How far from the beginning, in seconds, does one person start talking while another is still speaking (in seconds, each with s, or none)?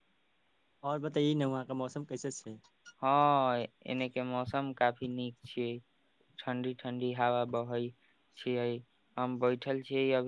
none